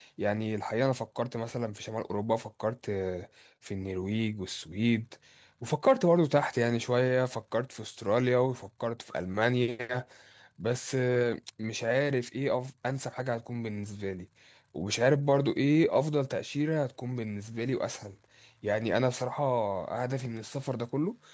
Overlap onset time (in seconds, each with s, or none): none